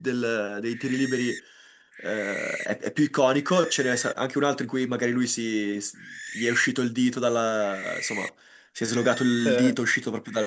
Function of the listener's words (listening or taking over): listening